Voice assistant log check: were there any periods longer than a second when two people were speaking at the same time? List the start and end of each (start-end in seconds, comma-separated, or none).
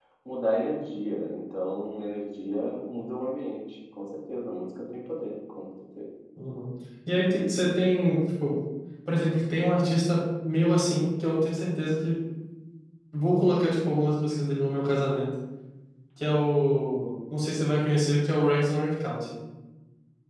none